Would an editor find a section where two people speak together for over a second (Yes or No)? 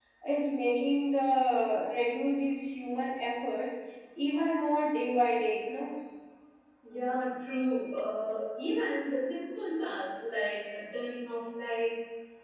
No